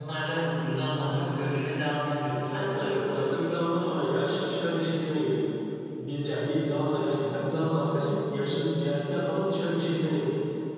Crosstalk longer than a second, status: present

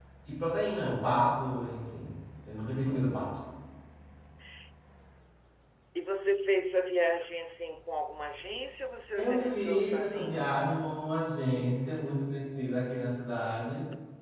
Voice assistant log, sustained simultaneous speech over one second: present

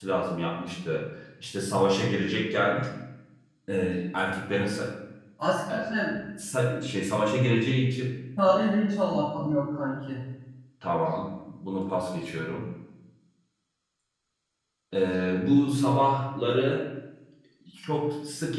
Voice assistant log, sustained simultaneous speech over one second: none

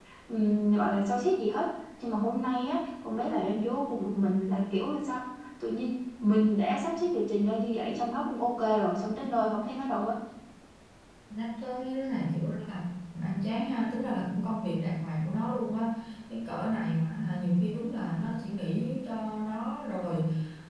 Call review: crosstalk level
none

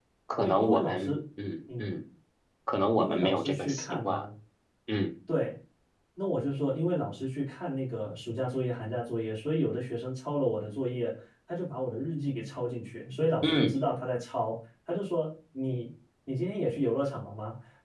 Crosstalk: present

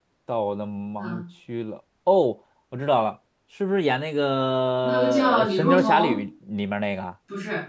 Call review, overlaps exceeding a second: present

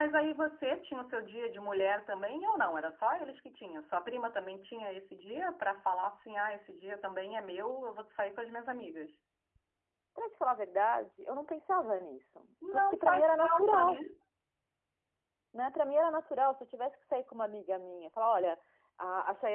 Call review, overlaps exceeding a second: present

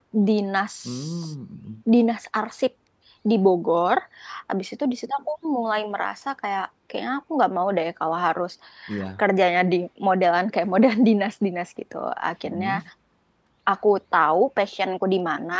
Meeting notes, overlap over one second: none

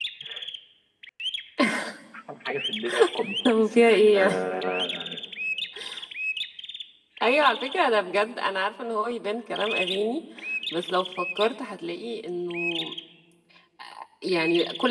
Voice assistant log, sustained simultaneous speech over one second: none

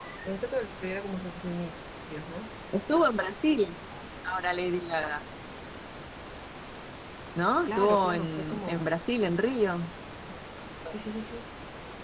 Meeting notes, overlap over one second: present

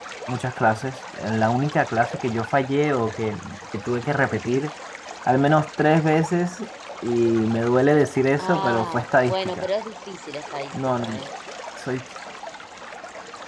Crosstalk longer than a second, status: present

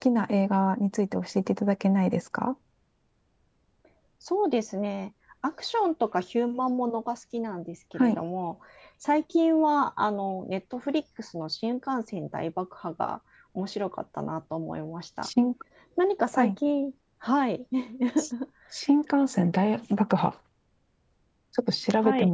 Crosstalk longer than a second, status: none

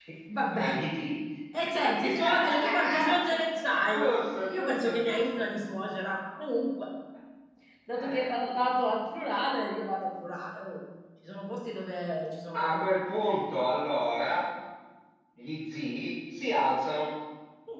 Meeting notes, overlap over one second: present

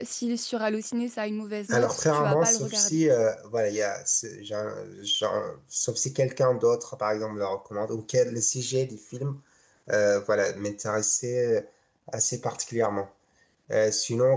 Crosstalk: present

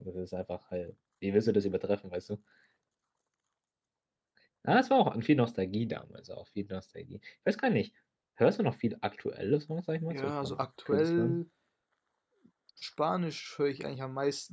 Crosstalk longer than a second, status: present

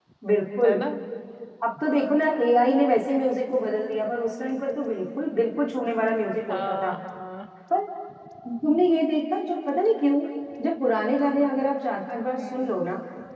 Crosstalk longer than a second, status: none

